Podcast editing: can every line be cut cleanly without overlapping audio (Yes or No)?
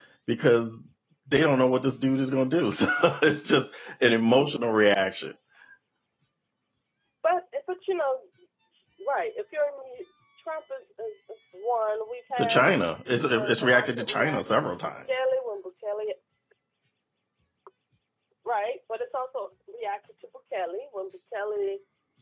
No